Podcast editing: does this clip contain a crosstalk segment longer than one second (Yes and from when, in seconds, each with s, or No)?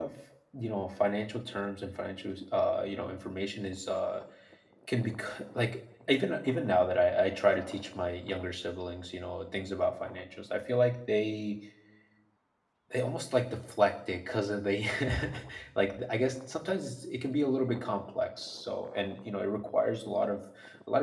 No